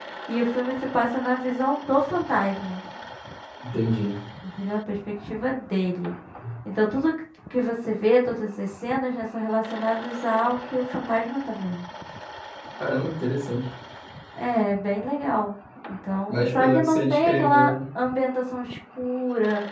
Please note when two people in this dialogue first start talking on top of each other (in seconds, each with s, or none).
16.3 s